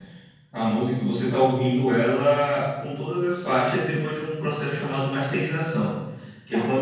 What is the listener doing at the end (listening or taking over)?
listening